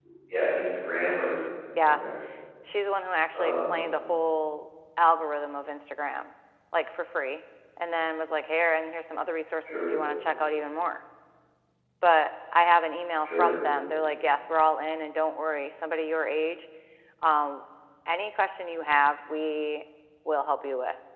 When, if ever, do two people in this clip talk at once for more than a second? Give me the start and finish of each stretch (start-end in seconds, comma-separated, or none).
none